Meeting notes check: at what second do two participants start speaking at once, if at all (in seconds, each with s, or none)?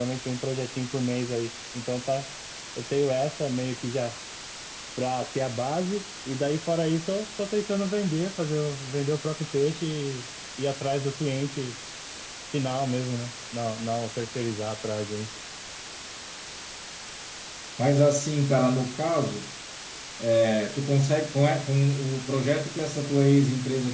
none